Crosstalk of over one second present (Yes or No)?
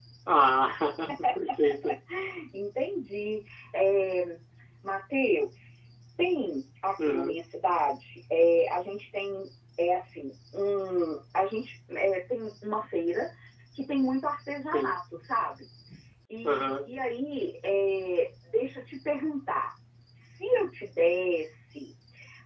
No